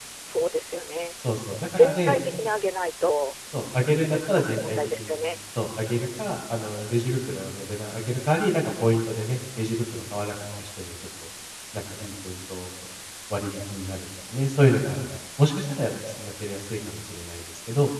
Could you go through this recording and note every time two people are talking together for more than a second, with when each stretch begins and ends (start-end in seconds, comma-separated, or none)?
3.9-5.1